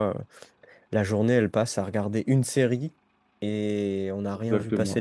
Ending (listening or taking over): taking over